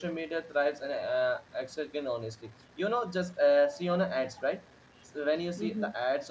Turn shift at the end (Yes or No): No